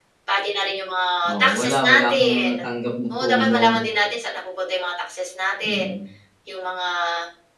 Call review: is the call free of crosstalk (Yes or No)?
No